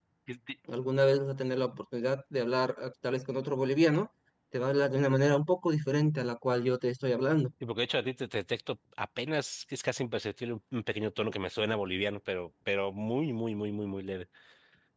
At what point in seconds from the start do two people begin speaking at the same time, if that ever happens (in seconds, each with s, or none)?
none